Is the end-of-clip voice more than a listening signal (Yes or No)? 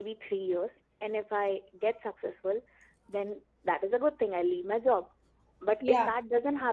No